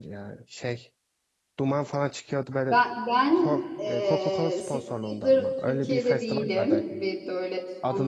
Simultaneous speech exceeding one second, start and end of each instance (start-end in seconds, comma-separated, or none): 3.3-4.6, 5.2-7.0